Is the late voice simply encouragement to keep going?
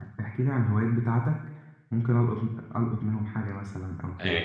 No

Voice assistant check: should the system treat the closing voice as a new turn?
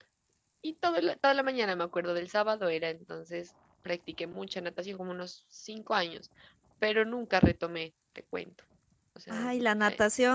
Yes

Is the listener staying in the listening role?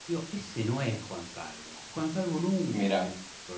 Yes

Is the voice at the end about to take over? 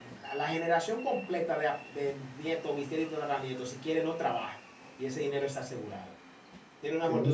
No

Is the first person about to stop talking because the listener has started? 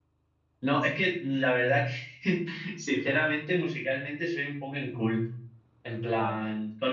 No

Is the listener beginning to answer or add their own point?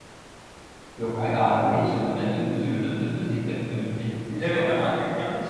Yes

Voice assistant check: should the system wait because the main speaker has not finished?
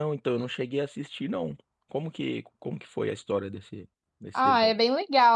No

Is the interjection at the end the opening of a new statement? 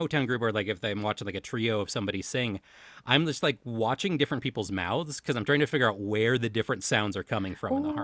Yes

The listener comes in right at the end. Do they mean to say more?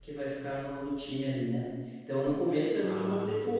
No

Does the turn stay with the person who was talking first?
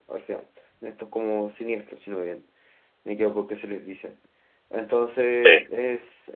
Yes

